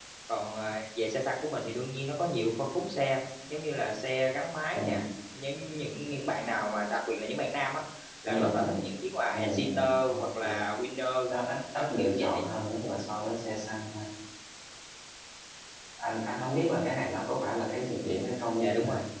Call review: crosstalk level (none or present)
present